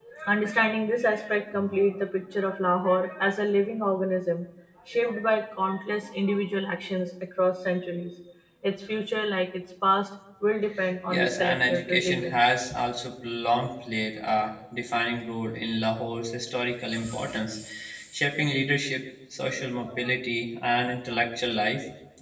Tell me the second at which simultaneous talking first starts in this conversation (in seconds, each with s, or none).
11.1 s